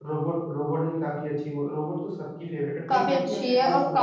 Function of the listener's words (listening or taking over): taking over